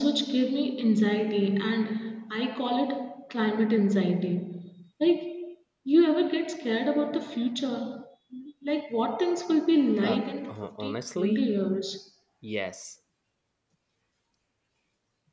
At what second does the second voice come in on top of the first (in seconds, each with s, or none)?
10.0 s